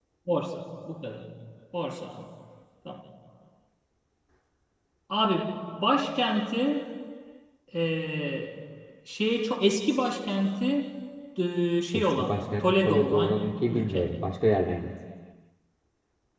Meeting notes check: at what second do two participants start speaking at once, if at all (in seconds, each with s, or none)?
11.9 s